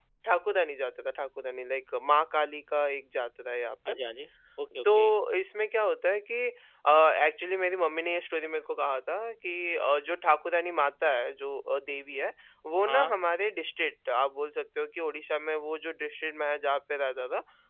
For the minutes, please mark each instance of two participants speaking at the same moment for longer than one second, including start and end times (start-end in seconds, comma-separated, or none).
none